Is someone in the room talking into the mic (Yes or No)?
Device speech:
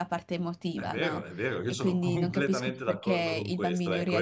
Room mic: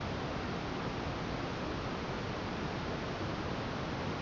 No